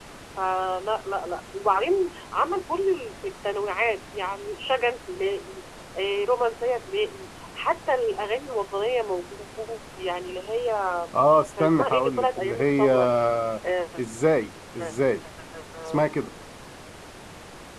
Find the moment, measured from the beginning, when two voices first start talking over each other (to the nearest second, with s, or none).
12 s